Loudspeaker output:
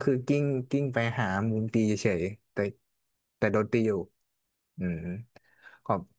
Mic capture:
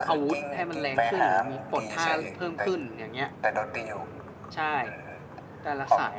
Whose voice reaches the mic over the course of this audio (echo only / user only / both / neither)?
both